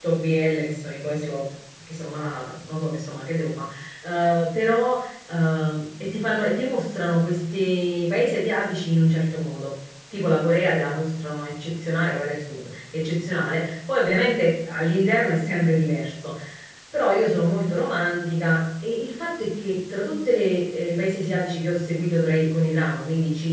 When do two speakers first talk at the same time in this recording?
none

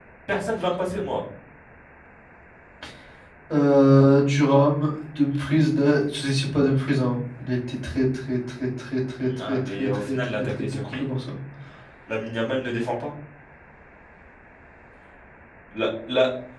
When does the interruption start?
9 s

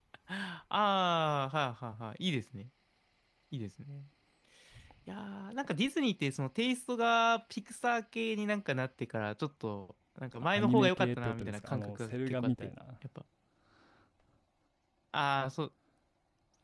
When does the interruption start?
11 s

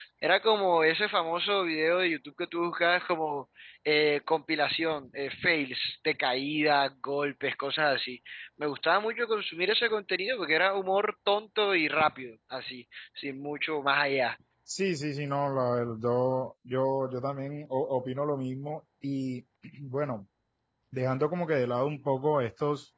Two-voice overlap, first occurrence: none

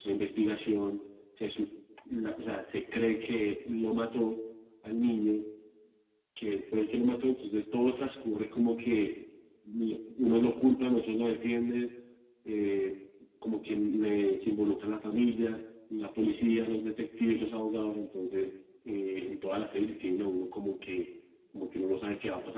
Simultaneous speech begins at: none

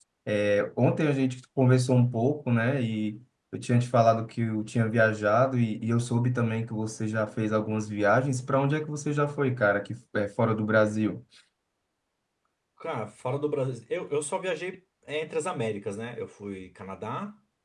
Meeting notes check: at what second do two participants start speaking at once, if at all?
none

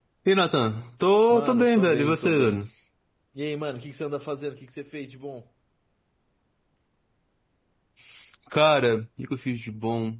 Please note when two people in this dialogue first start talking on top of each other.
1 s

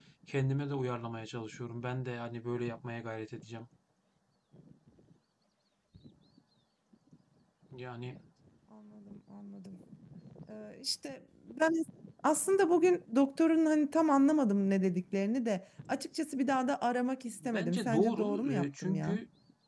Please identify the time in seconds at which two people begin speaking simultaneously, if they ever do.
17 s

